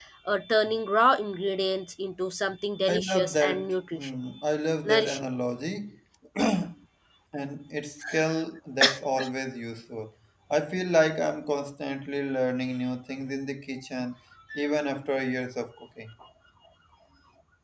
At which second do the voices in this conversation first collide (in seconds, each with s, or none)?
2.9 s